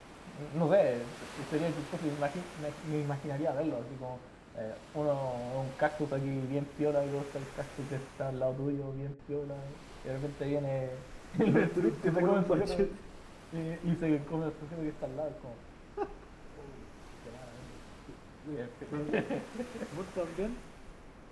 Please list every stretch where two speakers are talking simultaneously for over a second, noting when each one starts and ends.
11.4-12.9

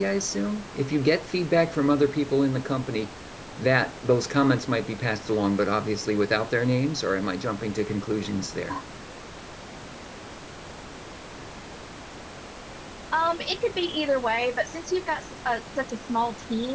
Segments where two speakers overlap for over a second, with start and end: none

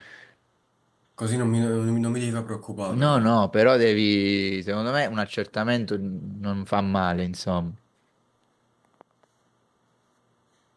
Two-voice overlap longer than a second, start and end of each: none

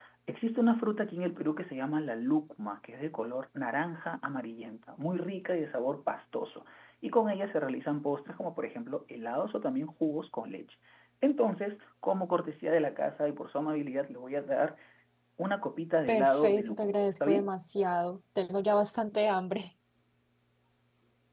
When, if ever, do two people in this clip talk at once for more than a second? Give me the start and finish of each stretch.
16.1-17.5

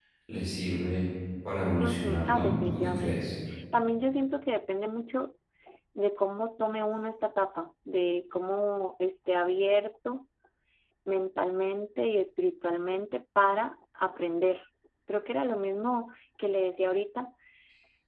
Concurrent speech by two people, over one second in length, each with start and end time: 1.8-3.2

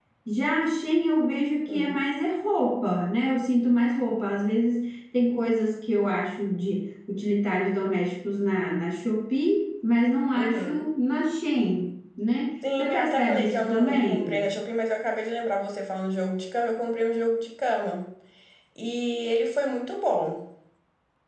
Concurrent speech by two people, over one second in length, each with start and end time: 12.8-14.4

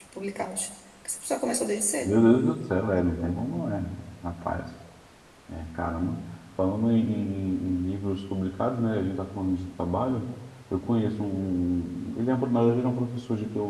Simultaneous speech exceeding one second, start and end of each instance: none

